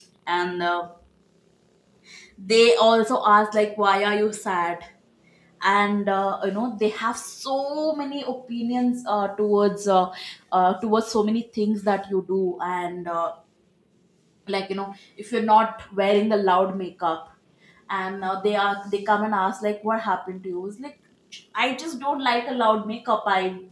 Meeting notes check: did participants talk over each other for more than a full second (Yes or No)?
No